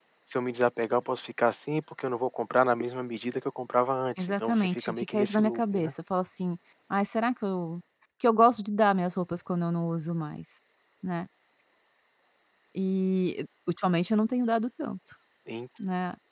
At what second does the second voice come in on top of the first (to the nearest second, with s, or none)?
4 s